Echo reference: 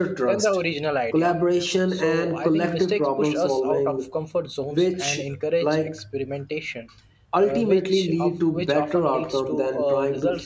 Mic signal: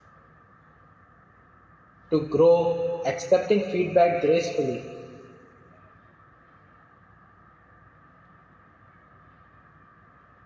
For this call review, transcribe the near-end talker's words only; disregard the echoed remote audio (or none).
to grow. Accepting feedback gracefully